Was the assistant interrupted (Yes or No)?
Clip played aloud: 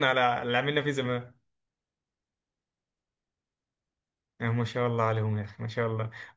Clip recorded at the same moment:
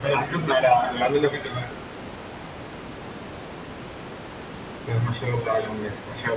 No